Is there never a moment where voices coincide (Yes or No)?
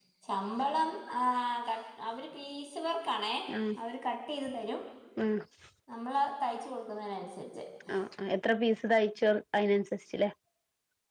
Yes